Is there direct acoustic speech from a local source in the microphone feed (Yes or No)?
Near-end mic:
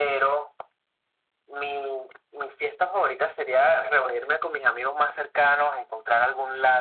No